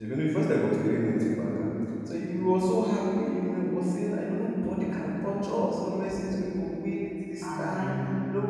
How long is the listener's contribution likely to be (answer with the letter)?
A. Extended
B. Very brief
B